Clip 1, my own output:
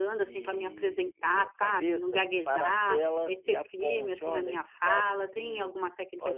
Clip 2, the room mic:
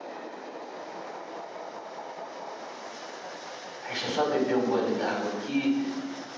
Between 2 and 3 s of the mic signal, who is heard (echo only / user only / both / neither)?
neither